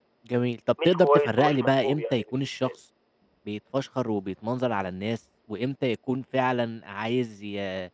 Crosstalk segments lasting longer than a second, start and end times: 0.8-2.7

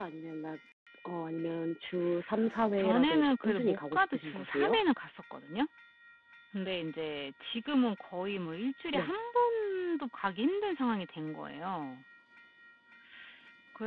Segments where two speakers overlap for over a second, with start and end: 2.8-4.8

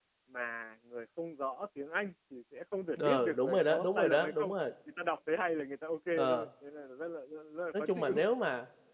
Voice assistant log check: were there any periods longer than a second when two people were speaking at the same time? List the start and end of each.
3.0-4.5

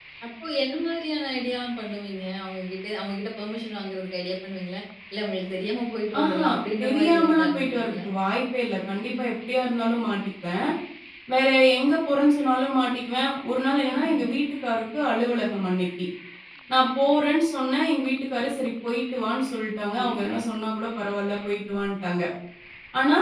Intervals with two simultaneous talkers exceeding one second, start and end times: 6.8-8.0

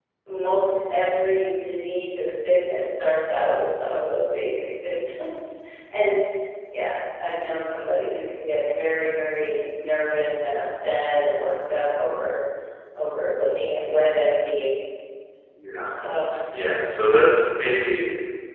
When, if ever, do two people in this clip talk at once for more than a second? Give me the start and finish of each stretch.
none

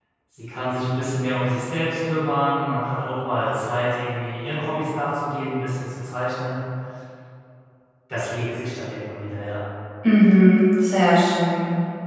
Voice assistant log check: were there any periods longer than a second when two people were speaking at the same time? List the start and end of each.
none

